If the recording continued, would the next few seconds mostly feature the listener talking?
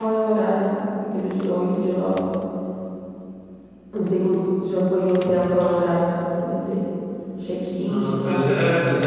Yes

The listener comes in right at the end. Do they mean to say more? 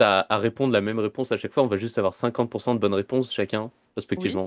No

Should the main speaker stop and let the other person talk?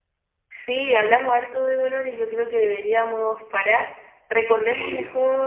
No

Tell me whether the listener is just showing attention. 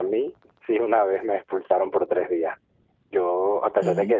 Yes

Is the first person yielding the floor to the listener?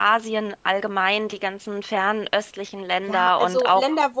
Yes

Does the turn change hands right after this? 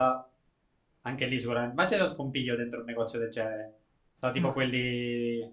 No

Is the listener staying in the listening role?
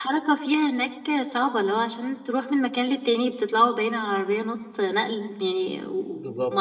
No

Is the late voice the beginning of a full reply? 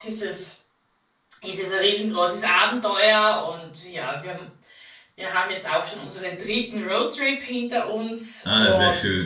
Yes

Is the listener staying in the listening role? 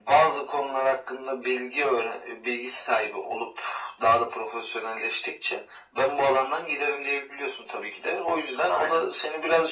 Yes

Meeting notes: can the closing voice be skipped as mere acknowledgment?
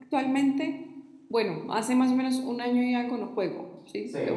No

